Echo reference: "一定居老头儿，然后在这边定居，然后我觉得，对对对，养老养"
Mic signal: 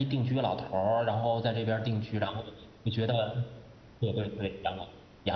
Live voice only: none

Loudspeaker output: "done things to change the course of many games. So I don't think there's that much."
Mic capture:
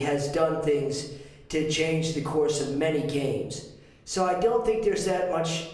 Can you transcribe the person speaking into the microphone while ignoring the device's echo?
none

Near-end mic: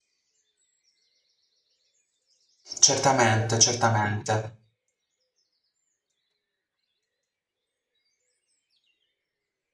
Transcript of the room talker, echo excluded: Certamente, certamente.

